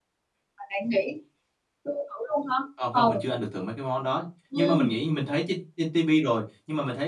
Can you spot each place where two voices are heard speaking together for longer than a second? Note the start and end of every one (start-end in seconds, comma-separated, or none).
none